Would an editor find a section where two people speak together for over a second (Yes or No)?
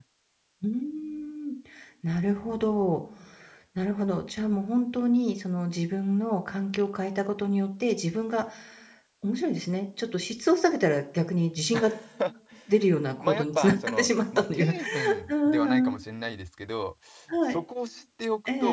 Yes